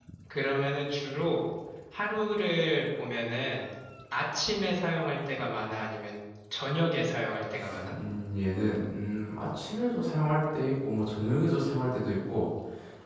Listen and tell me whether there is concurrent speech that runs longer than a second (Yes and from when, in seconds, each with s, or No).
No